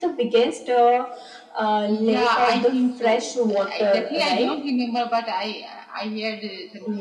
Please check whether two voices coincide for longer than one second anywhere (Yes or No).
Yes